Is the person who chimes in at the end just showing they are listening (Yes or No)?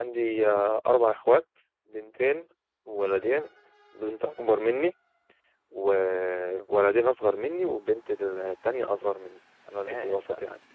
No